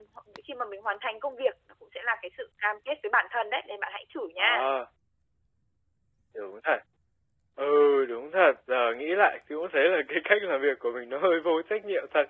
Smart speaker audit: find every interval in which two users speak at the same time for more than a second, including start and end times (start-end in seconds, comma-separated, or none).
none